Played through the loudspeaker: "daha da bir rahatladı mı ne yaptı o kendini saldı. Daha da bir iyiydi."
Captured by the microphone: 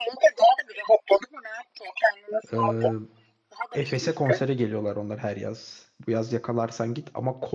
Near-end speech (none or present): present